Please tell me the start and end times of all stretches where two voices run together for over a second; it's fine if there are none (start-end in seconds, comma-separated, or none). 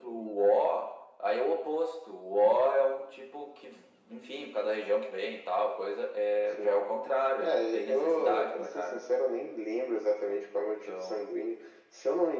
7.4-9.0